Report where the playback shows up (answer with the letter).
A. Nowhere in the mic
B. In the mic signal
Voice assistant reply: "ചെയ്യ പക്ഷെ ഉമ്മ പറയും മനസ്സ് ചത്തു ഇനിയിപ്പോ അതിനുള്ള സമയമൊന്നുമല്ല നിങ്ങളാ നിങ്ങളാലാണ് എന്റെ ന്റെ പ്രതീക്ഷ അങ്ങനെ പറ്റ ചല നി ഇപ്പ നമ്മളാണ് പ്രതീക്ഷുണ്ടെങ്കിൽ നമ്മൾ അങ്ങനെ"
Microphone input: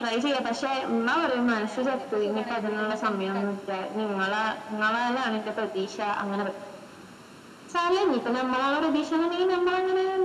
B